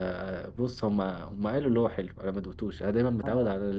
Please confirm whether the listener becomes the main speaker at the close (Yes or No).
Yes